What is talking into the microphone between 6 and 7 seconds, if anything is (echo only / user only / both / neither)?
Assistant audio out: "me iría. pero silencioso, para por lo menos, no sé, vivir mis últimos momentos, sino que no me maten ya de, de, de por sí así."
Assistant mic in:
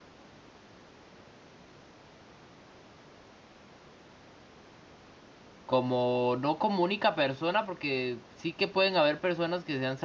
user only